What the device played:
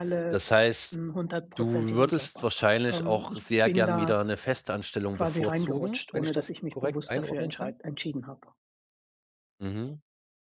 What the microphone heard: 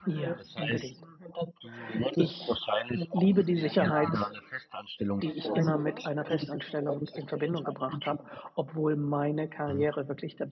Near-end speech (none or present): present